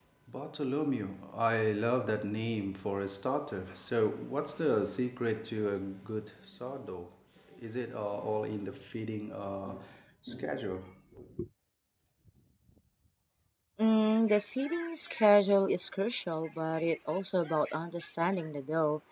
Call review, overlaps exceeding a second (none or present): none